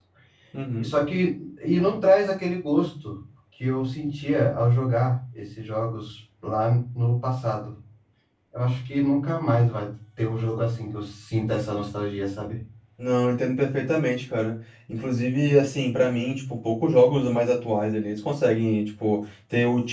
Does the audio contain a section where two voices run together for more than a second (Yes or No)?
No